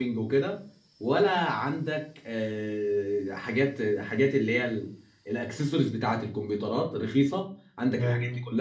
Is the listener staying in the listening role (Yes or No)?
Yes